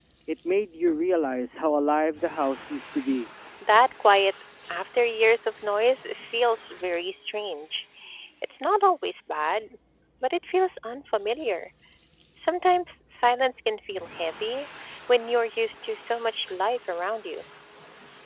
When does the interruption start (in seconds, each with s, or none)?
none